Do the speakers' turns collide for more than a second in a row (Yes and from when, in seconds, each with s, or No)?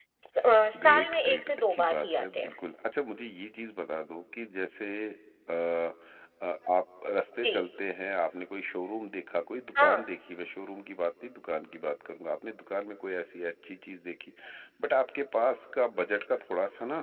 Yes, from 0.8 s